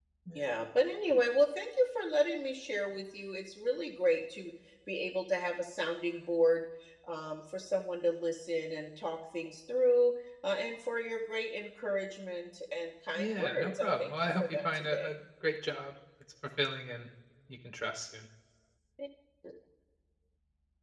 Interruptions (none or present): present